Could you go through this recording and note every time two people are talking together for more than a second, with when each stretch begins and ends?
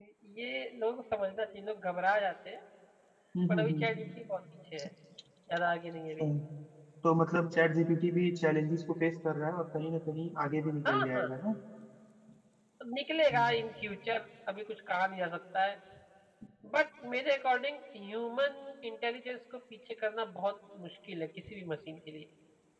none

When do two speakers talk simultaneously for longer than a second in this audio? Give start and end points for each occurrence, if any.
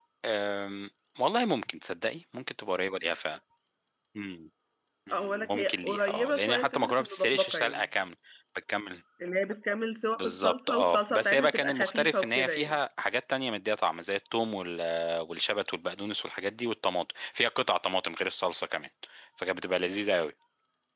5.1-7.8, 10.2-12.8

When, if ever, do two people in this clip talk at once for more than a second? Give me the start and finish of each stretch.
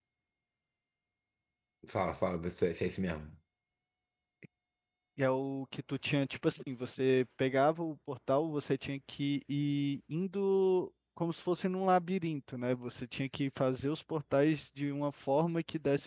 none

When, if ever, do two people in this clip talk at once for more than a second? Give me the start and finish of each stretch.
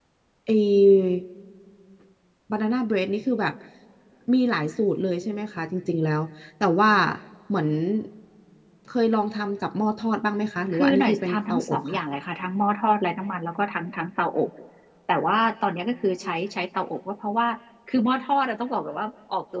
10.7-12.0

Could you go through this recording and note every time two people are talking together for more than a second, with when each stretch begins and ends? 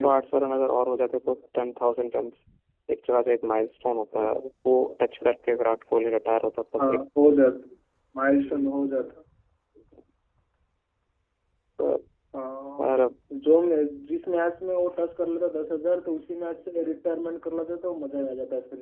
none

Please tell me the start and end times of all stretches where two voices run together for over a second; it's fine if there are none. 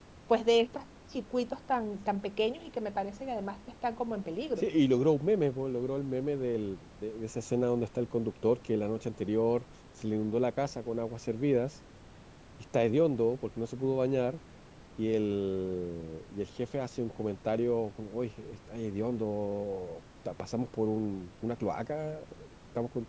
none

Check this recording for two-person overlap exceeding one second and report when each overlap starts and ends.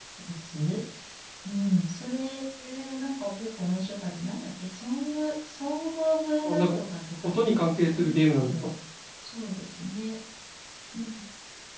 7.2-8.7

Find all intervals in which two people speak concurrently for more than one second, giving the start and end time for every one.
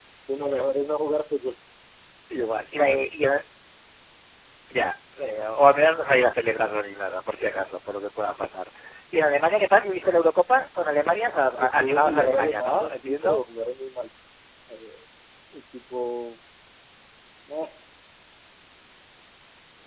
11.6-13.4

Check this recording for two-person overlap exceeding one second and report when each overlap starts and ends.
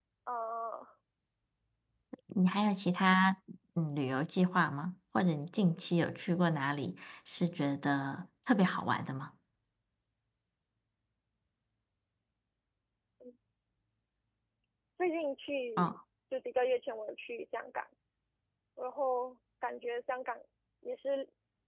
none

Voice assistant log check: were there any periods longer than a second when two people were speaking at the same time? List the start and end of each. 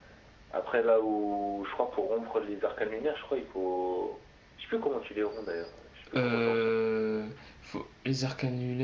none

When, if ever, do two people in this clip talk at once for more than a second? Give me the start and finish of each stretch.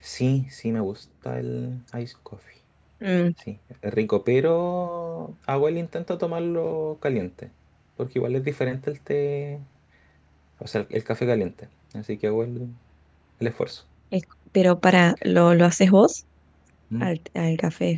none

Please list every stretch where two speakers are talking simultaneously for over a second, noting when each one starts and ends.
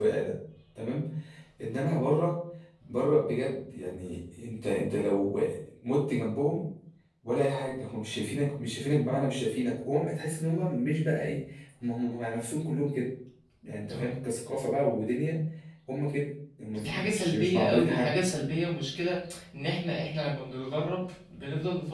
16.8-18.1

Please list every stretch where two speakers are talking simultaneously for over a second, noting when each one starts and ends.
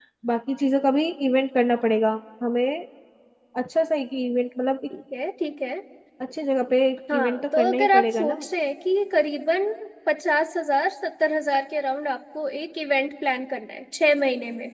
7.1-8.4

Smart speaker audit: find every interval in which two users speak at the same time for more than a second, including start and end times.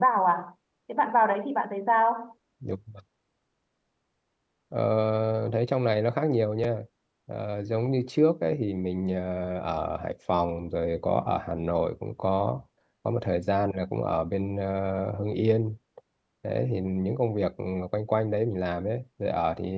none

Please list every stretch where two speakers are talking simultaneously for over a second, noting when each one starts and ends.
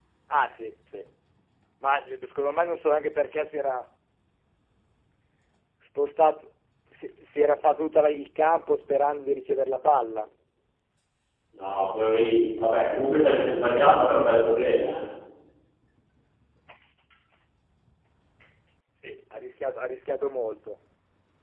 none

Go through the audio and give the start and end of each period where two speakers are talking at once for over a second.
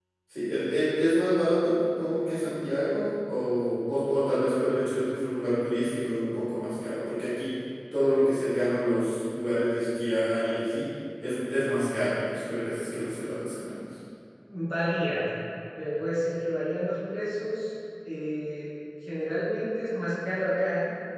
none

